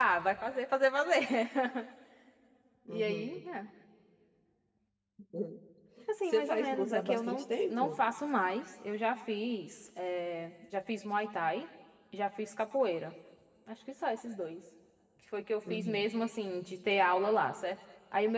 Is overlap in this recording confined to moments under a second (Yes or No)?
No